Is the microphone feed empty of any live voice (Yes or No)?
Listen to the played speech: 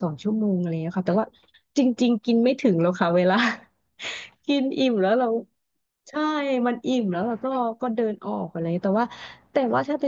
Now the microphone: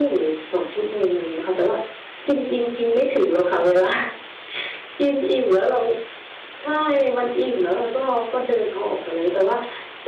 Yes